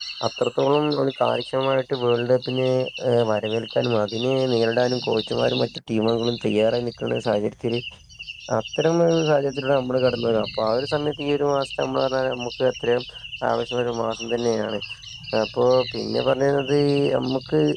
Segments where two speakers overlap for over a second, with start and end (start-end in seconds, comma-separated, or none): none